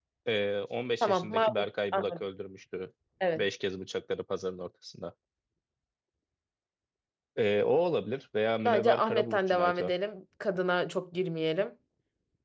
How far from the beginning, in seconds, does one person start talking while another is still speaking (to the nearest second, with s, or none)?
1 s